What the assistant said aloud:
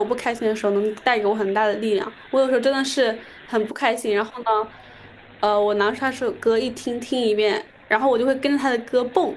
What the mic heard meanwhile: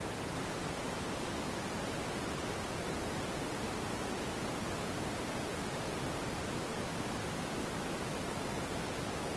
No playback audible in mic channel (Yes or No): Yes